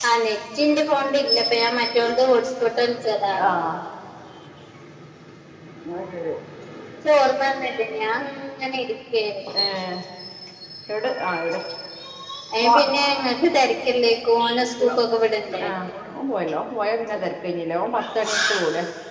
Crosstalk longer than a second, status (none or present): none